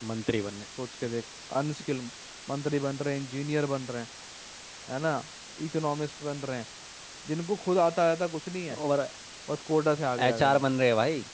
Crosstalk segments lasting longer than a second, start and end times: none

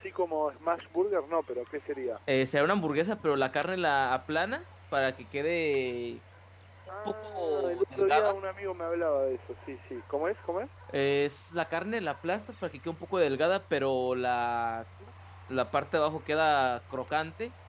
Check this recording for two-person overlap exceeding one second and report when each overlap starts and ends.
7.0-8.2

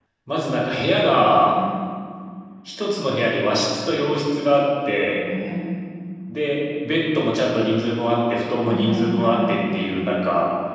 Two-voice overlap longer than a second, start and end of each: 8.6-9.9

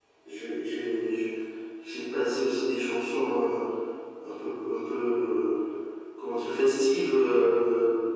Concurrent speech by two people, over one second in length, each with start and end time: none

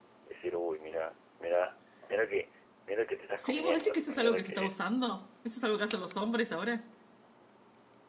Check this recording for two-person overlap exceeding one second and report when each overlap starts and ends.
3.4-4.7

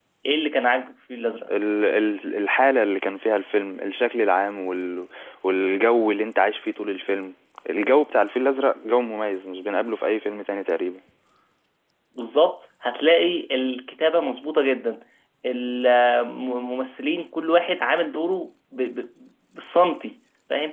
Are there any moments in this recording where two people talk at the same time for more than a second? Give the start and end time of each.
none

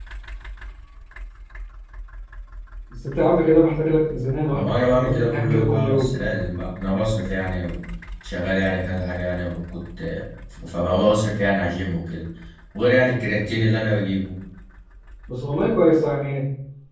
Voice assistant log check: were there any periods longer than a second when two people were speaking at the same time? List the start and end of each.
4.5-6.2

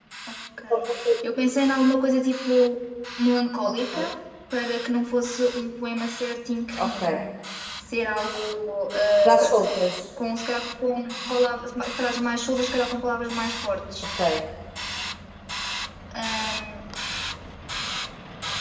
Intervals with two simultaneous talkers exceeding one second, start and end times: none

